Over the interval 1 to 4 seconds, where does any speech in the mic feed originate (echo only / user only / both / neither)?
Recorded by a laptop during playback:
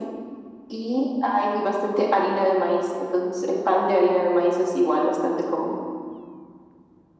echo only